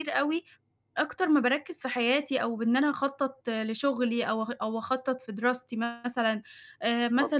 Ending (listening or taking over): listening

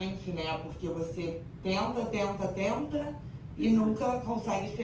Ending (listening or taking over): listening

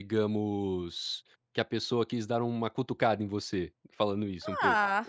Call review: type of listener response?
taking over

